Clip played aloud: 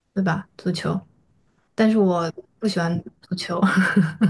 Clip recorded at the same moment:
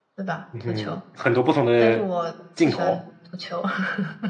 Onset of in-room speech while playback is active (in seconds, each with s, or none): 0.5 s